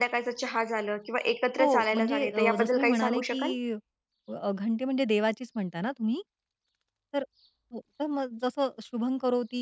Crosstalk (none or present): present